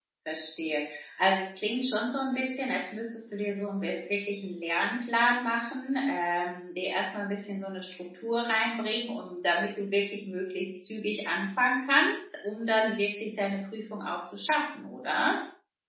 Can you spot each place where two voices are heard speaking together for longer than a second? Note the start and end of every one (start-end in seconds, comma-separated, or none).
none